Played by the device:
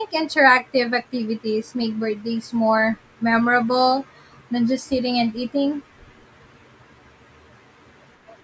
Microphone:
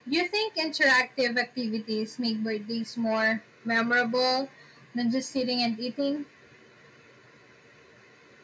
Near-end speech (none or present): none